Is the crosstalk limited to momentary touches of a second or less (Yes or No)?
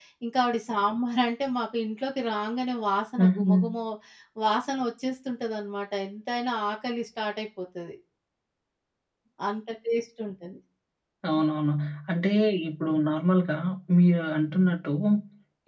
Yes